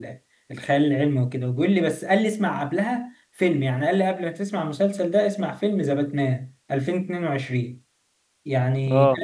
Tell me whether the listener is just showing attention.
Yes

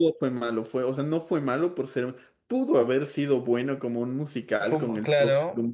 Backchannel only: Yes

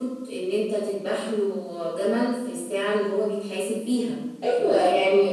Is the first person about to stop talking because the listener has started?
Yes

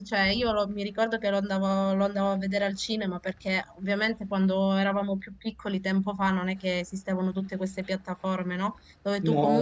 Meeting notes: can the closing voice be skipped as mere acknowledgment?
Yes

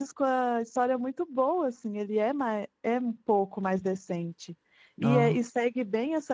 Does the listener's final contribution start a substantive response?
No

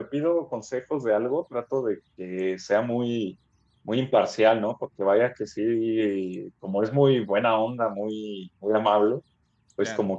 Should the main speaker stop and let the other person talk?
No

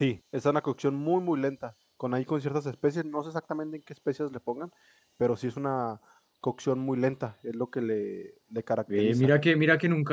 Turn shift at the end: Yes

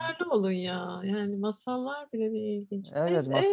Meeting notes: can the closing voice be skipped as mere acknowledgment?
No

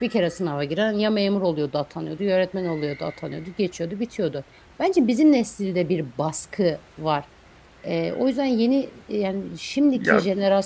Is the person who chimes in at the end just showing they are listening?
Yes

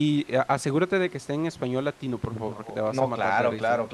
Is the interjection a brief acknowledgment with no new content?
No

